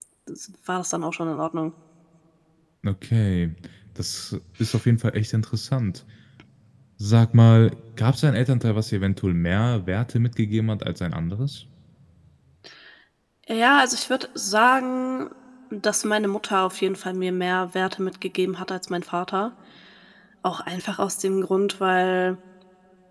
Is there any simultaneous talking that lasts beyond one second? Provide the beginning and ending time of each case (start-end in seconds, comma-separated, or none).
none